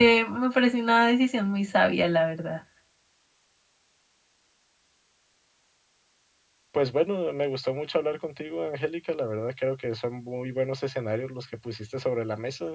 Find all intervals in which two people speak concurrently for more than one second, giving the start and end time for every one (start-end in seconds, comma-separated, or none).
none